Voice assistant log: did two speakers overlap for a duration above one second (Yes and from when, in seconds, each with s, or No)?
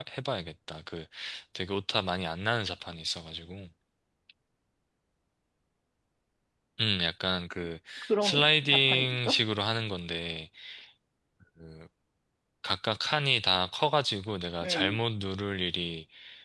Yes, from 8.2 s